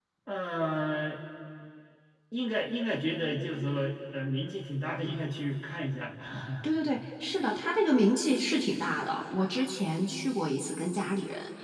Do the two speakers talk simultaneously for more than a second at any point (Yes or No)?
No